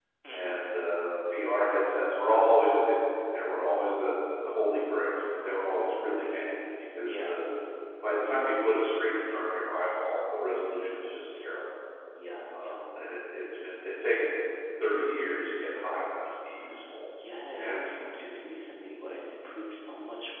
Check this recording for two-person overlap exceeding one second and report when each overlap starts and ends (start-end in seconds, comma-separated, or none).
4.9-6.1